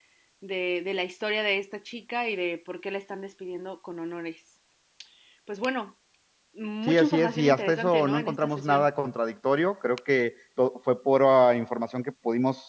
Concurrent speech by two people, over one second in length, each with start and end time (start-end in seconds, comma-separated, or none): 6.9-8.9